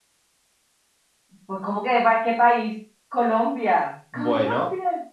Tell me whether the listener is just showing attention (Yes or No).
No